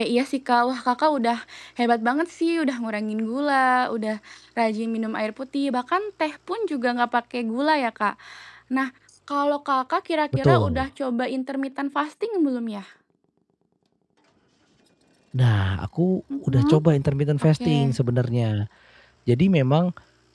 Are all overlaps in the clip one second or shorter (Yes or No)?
Yes